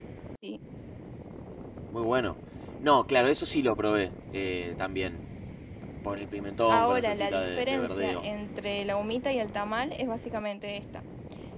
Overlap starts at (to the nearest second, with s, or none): 7 s